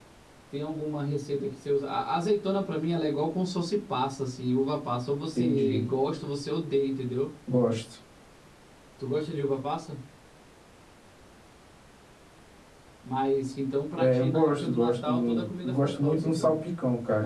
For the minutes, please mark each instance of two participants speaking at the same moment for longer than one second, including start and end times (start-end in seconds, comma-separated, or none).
14.0-16.6